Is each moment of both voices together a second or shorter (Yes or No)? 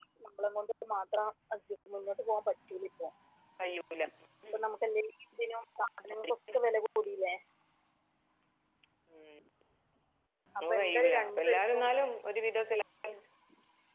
No